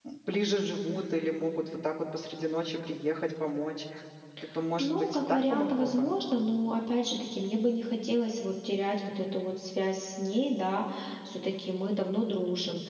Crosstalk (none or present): present